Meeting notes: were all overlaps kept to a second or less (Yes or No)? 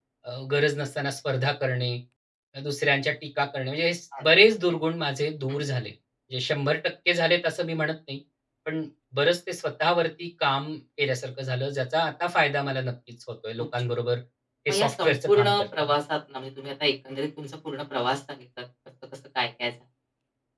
No